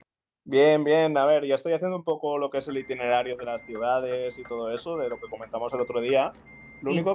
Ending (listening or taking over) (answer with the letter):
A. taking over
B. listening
B